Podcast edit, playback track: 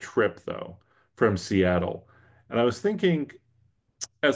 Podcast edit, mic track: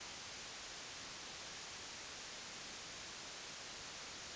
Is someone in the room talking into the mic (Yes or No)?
No